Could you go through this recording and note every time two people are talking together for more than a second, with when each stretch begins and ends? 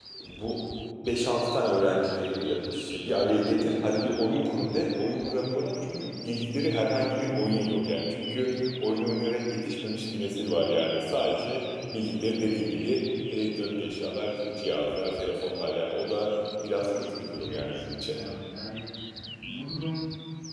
16.9-18.2

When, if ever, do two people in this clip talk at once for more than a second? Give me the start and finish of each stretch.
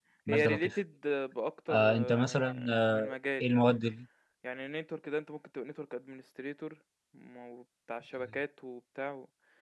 1.7-3.0

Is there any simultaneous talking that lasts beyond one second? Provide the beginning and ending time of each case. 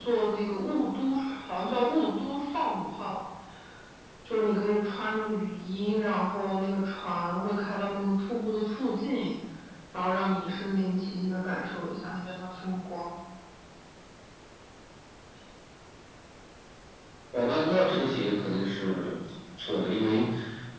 none

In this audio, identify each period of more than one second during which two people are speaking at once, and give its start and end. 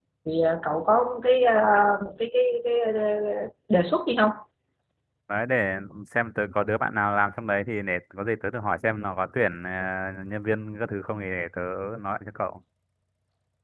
none

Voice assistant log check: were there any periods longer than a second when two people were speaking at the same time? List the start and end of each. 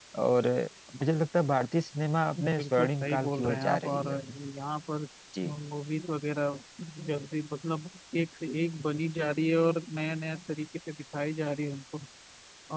2.4-4.1

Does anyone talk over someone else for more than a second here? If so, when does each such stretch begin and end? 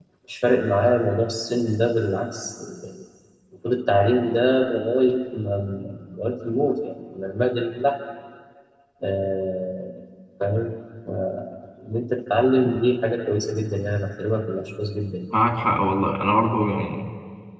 none

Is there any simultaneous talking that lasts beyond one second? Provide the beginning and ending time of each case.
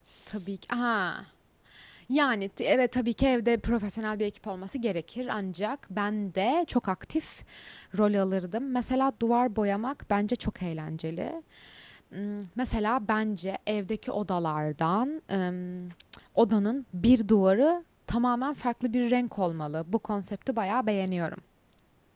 none

